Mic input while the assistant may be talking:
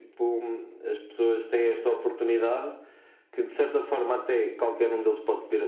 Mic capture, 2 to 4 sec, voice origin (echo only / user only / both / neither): echo only